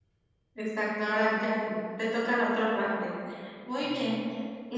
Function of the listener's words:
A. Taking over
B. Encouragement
B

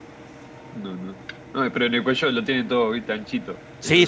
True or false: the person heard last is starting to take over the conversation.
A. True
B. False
A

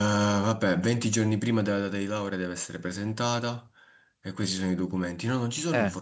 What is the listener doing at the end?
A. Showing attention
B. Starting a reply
A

